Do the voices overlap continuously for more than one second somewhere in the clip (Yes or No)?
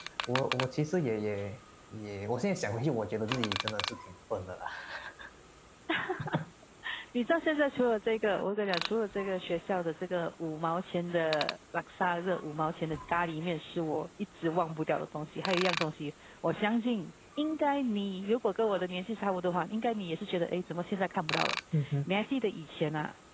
No